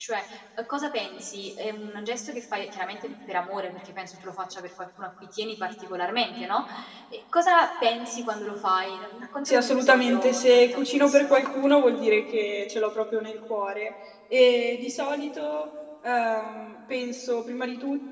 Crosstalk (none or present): present